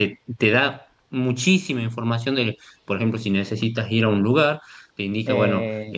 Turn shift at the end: No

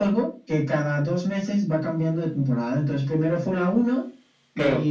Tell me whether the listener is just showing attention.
Yes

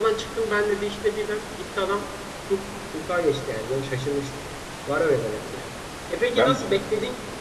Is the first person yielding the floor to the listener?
No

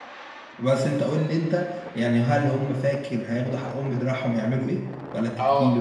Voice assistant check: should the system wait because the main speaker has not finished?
No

